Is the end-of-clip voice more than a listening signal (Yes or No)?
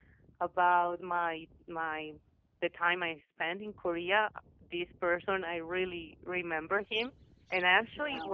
No